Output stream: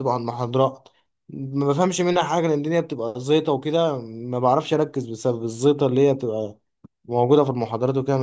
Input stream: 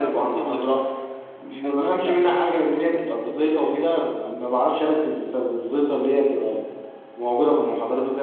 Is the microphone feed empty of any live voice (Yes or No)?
No